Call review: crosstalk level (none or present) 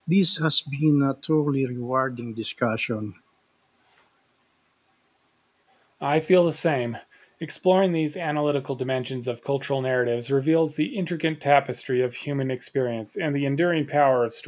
none